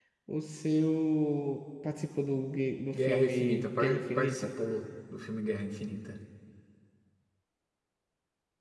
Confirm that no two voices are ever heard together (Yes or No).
No